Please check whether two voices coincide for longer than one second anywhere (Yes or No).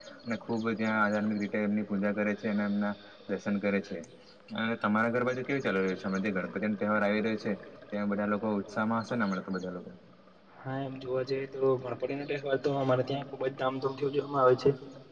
No